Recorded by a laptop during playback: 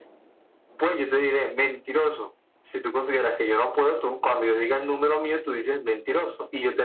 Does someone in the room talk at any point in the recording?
No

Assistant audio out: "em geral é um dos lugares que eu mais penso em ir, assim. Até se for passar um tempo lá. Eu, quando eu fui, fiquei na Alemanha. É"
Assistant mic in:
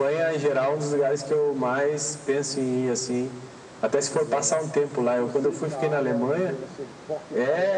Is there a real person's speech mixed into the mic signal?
Yes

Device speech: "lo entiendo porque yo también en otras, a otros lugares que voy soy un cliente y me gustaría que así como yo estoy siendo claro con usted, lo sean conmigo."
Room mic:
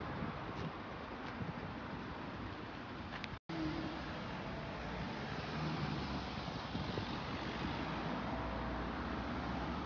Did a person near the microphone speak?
No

